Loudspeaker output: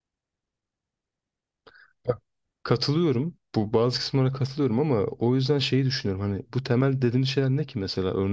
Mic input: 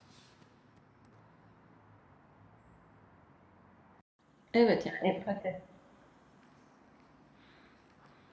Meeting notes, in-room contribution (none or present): present